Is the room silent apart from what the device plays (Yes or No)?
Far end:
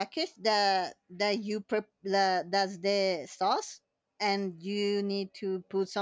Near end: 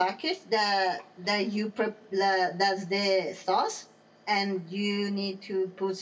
Yes